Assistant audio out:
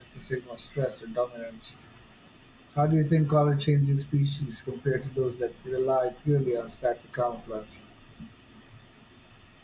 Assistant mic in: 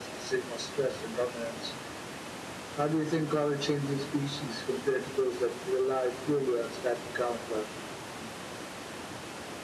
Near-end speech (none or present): none